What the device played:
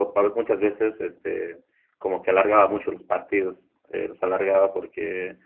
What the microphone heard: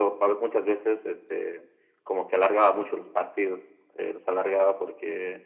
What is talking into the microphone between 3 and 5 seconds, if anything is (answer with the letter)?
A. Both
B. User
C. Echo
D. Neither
C